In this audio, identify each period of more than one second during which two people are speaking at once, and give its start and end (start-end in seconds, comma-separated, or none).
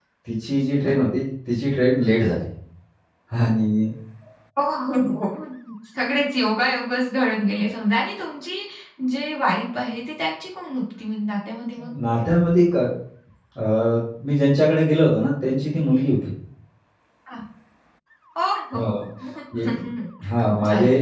none